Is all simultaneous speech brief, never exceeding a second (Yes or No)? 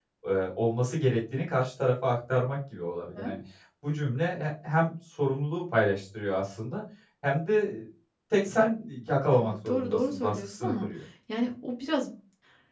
No